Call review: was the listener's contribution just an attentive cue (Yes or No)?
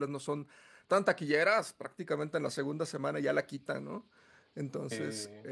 Yes